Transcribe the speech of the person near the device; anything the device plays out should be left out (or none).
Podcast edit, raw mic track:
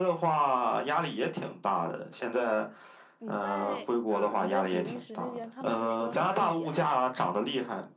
你在嗯你在比利时那边，他们是说什么语言呀？